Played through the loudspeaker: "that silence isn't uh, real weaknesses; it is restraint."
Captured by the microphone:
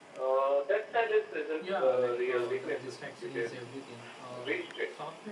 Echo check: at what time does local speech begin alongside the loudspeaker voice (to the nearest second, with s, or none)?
2 s